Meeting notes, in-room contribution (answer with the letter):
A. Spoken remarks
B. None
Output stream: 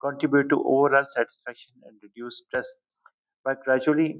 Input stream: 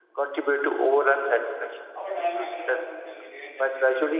A